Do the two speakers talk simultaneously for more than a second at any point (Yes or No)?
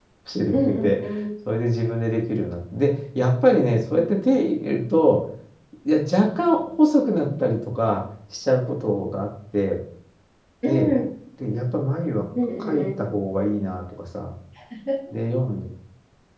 No